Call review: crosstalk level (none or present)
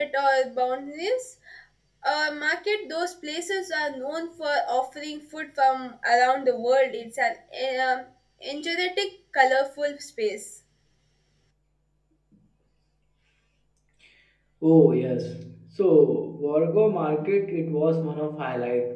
none